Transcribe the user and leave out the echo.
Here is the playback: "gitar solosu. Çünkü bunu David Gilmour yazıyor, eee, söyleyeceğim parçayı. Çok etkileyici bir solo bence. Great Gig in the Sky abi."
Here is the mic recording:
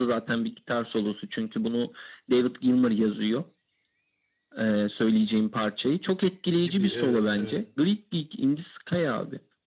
gibi evet evet.

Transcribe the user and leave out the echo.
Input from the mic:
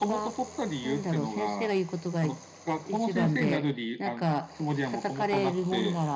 none

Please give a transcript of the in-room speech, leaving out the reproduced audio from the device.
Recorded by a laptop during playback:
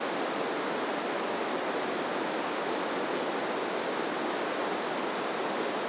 none

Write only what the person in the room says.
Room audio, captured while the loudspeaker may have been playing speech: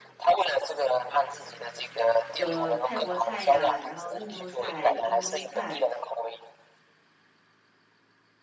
有泰国菜呀，然后印度菜、中东菜、

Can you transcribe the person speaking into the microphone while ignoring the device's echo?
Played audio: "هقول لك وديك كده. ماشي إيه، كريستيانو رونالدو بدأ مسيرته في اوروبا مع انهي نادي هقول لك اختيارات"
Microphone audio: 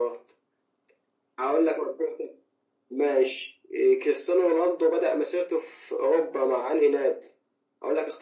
none

